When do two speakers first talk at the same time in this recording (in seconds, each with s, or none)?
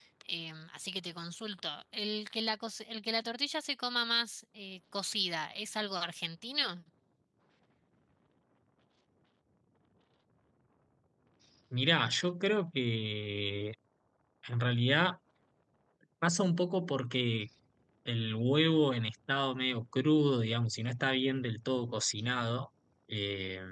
none